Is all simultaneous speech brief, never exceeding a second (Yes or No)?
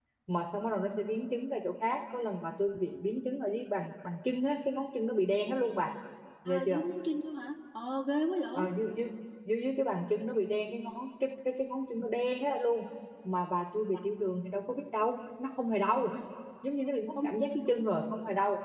Yes